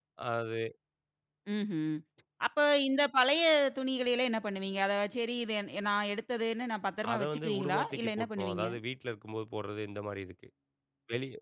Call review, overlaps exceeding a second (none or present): present